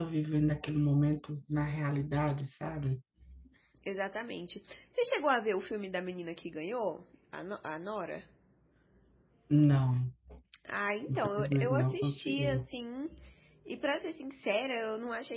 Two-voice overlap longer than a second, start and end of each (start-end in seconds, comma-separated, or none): 11.1-12.7